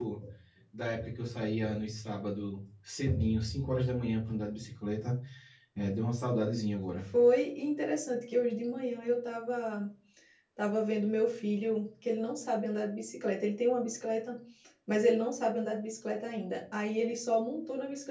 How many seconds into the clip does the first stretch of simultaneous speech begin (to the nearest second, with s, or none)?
none